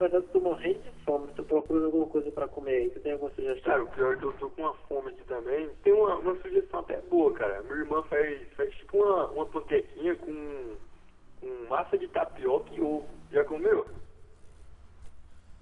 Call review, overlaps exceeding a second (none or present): none